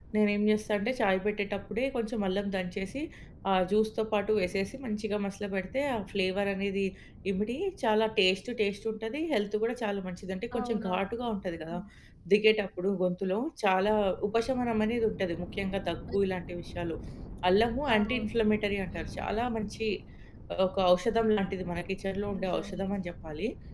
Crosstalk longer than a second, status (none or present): none